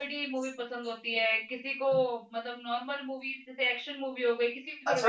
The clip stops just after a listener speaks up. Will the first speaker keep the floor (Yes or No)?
No